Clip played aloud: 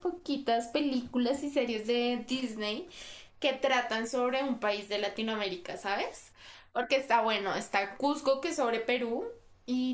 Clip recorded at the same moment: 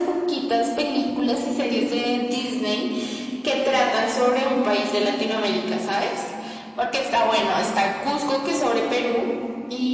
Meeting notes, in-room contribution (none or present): none